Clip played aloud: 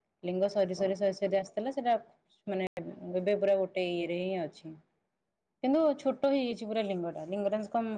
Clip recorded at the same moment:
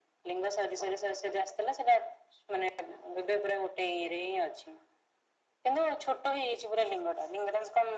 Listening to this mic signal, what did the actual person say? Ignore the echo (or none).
none